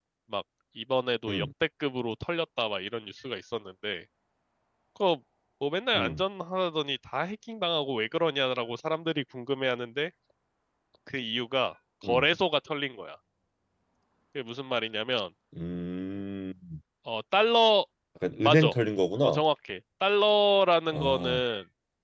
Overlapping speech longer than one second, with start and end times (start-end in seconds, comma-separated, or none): none